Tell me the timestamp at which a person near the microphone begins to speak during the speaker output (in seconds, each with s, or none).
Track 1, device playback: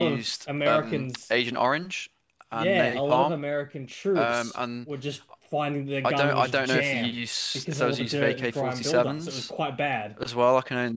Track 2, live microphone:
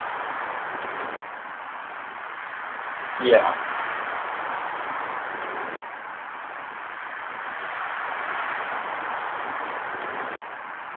3.2 s